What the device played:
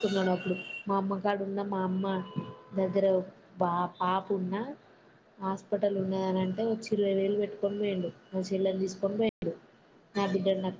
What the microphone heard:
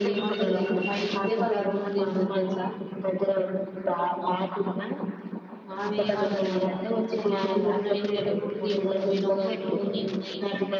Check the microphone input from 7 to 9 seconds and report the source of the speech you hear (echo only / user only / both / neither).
both